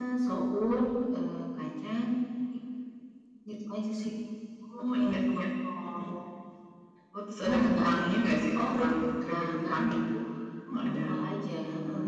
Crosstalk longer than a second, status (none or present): present